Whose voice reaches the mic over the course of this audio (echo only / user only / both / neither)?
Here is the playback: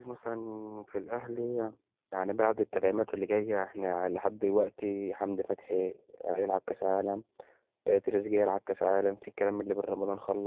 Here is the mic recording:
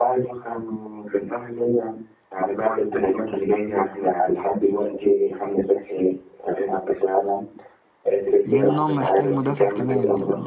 both